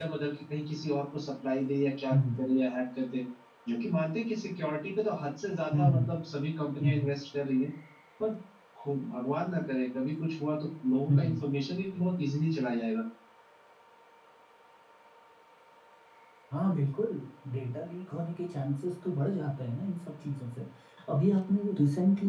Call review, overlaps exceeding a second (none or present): none